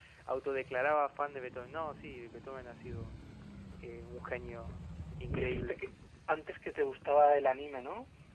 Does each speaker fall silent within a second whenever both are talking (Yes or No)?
Yes